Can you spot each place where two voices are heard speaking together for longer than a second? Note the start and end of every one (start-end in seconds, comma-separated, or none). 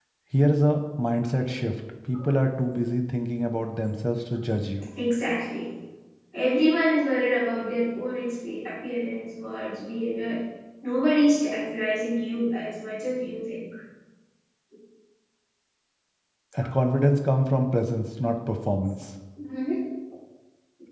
none